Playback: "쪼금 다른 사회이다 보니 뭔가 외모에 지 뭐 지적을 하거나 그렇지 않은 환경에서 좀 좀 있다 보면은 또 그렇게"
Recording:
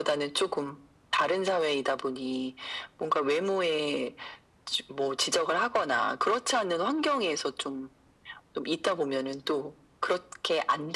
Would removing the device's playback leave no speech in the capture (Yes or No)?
Yes